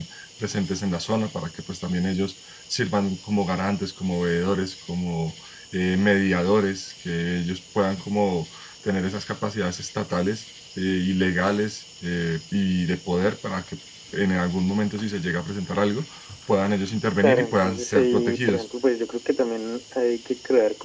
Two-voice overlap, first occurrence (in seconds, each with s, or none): 17.2 s